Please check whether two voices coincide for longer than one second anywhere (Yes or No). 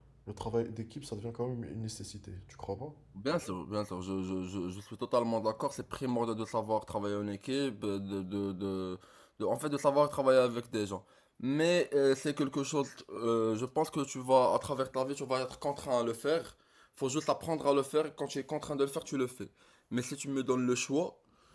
No